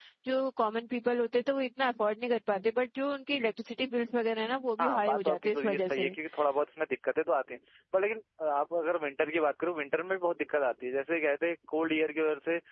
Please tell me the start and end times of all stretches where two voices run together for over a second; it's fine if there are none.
4.8-6.1

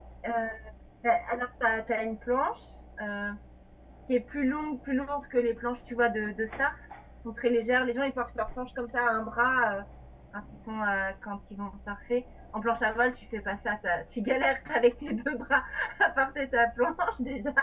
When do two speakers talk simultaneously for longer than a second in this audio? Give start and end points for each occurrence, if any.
none

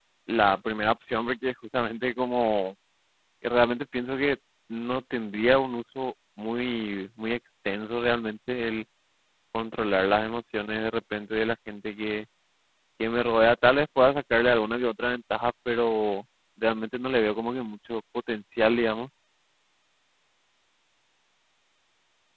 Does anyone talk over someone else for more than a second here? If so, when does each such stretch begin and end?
none

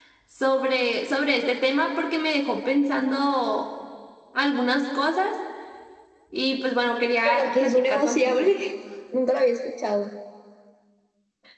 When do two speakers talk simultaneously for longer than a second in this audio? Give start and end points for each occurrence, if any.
7.2-8.5

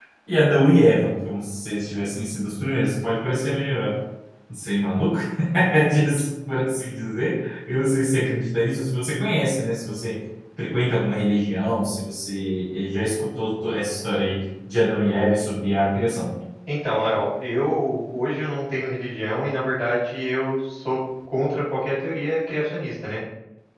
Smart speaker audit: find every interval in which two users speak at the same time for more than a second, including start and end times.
none

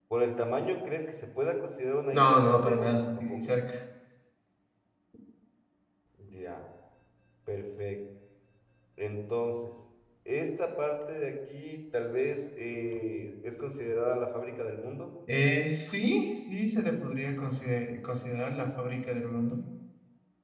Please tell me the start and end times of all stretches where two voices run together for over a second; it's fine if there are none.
2.1-3.4

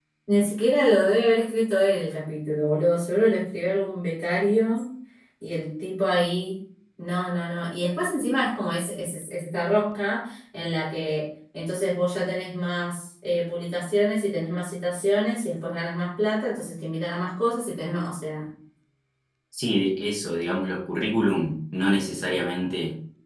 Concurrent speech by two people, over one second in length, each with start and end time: none

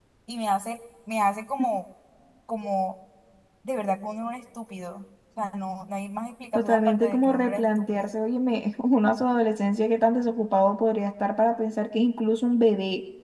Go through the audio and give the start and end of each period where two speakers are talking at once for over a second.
6.5-8.1

